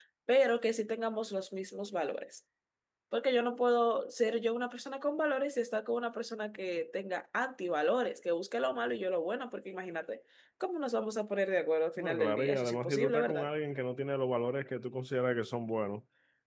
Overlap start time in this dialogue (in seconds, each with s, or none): 12.0 s